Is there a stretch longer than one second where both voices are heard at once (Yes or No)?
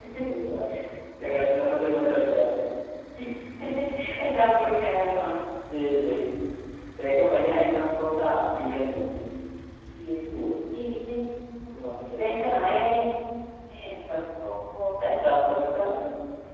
No